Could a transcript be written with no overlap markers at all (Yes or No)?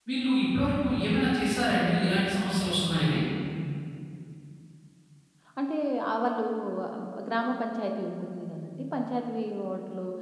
Yes